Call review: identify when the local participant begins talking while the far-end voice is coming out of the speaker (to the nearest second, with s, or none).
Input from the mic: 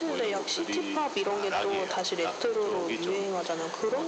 none